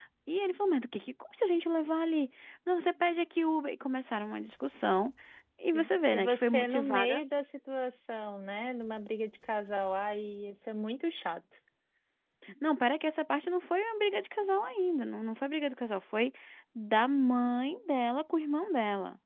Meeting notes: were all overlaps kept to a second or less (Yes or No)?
No